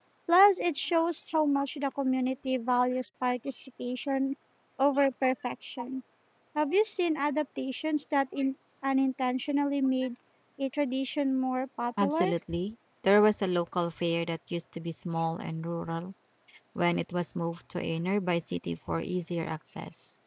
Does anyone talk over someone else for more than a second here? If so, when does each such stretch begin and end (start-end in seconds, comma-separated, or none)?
none